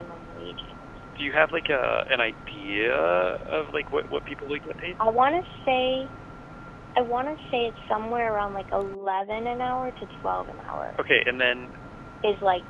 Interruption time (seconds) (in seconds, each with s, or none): none